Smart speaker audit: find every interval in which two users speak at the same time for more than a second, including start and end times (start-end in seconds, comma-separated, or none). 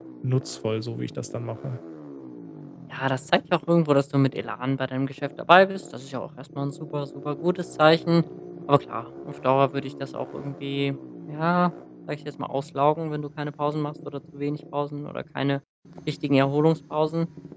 none